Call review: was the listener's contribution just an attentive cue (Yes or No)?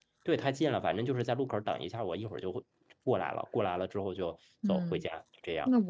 No